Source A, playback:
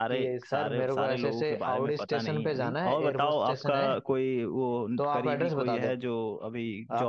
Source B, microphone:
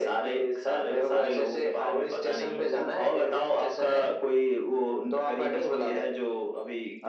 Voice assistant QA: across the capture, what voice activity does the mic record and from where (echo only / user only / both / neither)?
echo only